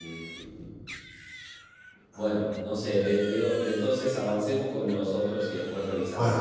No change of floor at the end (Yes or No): No